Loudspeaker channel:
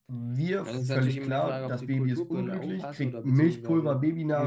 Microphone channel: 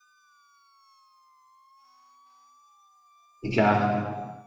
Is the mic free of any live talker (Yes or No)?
No